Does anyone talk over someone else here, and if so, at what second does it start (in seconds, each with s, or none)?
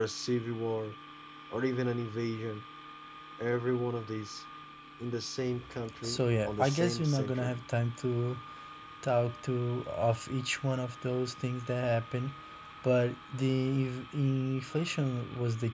6.0 s